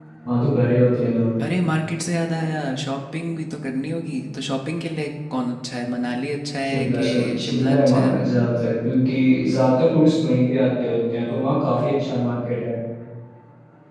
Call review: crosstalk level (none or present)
present